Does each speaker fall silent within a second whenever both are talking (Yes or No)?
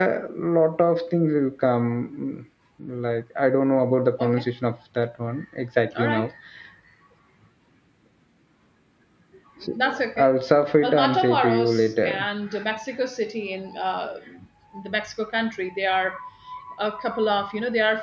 No